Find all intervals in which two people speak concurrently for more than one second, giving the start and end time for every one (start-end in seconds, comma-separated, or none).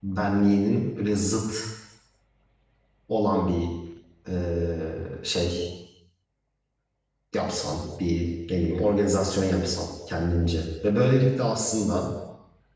none